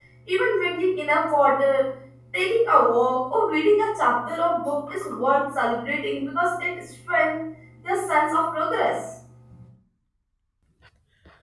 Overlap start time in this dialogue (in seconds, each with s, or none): none